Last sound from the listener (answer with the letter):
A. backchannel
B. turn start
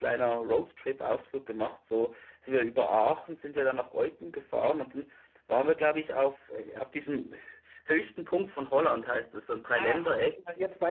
B